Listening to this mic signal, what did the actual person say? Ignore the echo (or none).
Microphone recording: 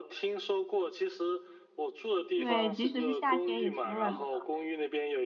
对，即使是夏天也挺冷的，